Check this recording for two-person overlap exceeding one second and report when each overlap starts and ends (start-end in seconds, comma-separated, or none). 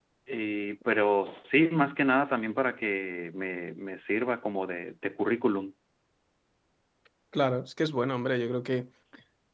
none